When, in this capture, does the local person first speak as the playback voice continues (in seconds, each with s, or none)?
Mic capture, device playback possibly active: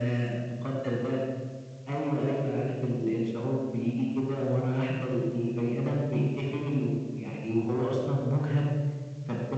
none